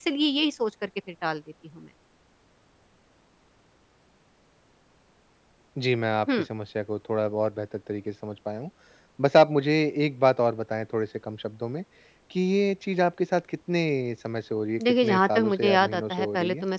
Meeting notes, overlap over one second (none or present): present